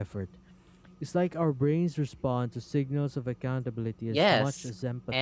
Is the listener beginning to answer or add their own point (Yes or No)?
Yes